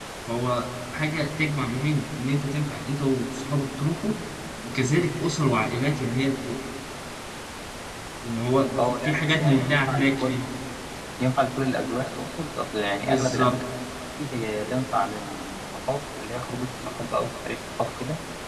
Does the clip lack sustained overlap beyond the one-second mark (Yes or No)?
No